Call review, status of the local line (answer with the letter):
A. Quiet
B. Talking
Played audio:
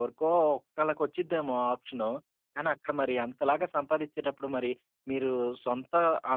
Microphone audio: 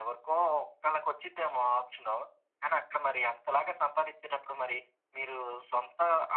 A